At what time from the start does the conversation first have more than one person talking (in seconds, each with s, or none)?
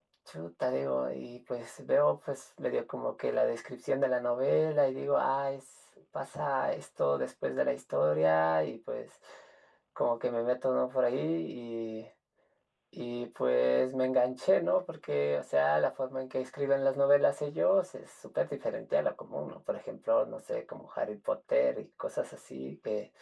none